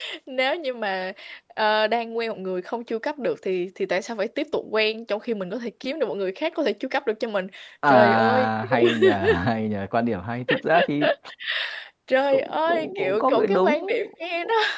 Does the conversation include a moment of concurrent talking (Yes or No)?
Yes